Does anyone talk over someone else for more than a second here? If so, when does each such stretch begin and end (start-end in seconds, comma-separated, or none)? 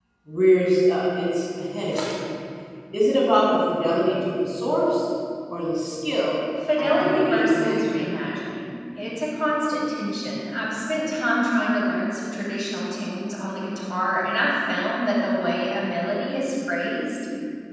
6.8-8.1